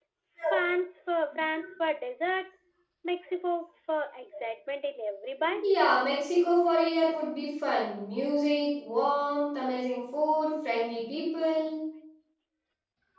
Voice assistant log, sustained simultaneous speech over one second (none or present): none